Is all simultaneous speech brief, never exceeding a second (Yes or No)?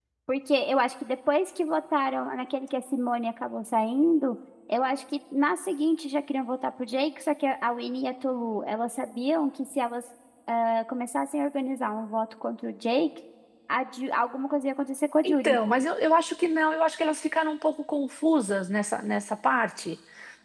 Yes